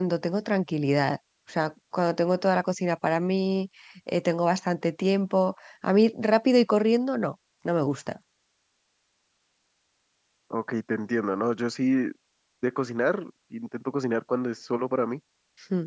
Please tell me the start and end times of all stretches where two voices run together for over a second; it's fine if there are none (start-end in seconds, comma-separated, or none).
none